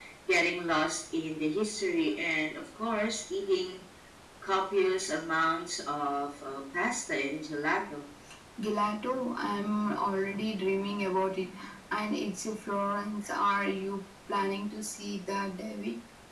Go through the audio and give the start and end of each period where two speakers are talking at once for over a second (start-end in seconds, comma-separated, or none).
none